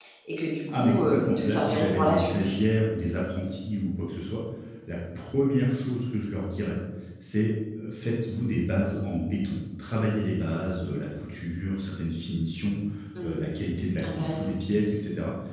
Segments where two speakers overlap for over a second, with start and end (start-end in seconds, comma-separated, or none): 0.7-2.4